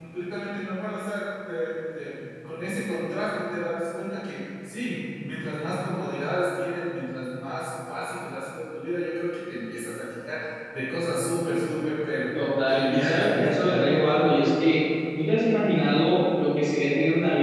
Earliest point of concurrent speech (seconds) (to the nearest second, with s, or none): 13 s